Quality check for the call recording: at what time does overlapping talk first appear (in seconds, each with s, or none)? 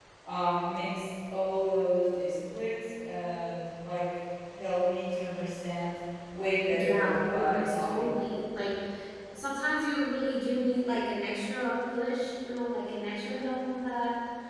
6.7 s